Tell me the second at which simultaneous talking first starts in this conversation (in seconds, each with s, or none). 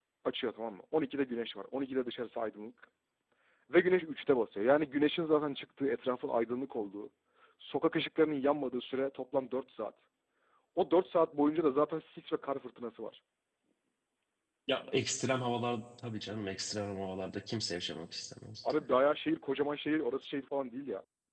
none